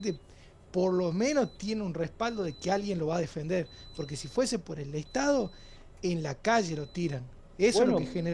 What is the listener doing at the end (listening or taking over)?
taking over